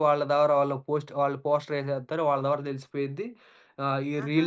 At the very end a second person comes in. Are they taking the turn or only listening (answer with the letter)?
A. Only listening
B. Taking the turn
A